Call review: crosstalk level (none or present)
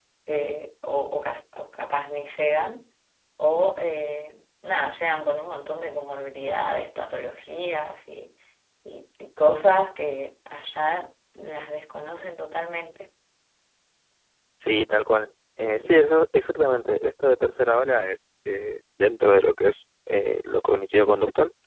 none